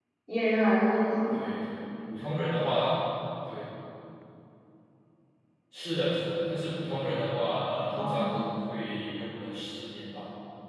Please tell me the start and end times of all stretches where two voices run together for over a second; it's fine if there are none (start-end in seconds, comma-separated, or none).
none